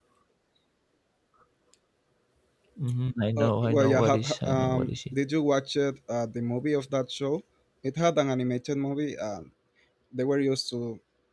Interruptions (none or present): present